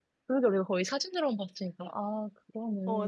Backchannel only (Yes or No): No